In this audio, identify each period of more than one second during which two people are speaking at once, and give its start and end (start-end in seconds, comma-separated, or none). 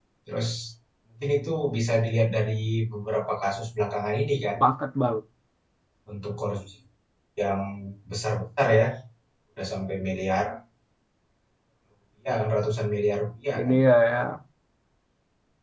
none